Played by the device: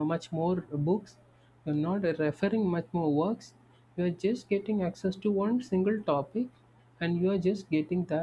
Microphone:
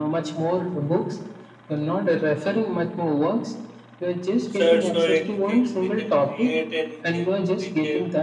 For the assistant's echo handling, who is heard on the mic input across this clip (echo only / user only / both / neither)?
both